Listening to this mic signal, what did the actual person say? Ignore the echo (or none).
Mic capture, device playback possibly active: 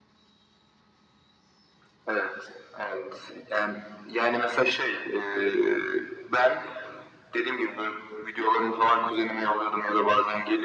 none